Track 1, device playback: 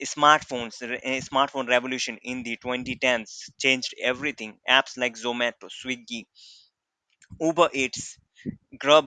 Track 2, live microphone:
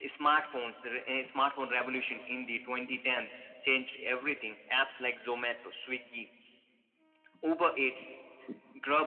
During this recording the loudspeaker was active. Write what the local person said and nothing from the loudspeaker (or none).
none